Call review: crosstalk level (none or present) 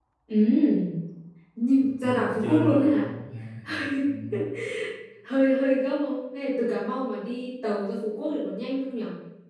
present